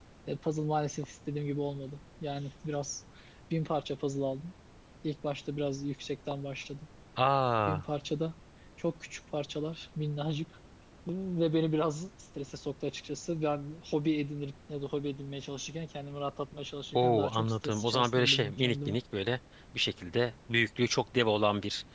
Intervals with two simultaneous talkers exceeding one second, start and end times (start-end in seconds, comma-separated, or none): 16.9-18.9